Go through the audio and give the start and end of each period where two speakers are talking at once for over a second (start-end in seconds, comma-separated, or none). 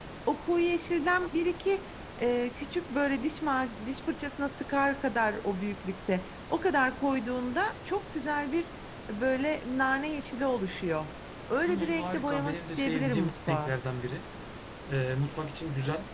11.6-13.7